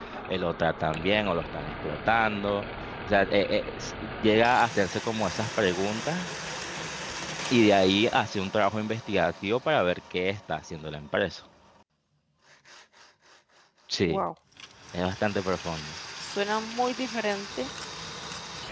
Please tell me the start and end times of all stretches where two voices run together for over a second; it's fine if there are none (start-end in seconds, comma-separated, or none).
none